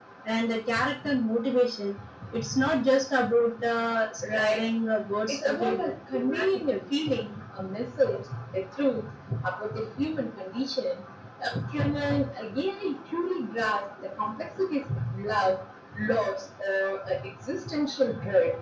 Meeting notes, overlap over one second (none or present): present